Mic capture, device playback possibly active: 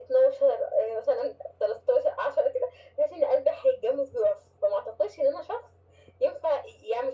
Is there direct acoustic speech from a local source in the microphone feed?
No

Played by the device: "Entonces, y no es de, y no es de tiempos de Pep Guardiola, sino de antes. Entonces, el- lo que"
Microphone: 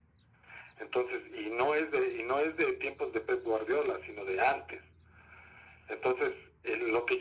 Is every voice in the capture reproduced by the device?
Yes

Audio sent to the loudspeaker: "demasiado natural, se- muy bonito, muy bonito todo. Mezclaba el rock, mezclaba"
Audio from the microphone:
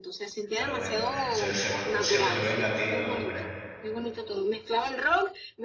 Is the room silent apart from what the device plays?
No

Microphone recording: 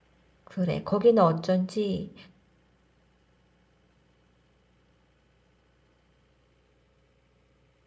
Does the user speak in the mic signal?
Yes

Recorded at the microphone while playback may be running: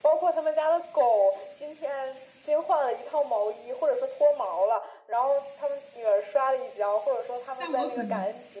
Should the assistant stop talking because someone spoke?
Yes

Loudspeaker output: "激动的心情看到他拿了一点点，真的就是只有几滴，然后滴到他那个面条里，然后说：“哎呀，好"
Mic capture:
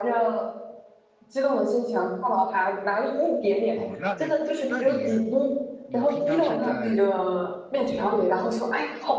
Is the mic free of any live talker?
No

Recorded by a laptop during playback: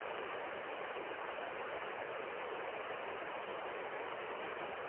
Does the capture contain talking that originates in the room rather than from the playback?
No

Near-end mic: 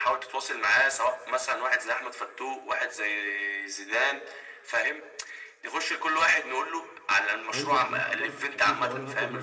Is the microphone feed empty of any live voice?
No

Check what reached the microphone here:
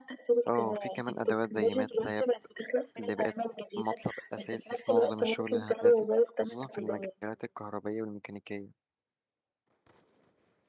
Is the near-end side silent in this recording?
No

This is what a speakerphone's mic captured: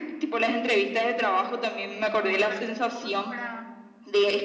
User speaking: Yes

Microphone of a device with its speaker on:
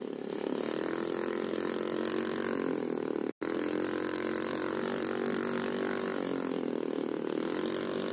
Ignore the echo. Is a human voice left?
No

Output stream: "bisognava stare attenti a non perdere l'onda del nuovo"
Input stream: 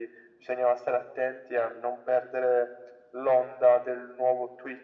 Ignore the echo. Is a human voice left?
No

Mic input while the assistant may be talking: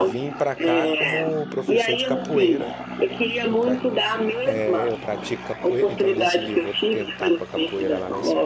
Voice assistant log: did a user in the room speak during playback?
Yes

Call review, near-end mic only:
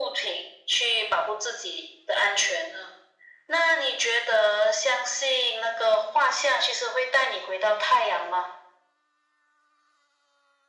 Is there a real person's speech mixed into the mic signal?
No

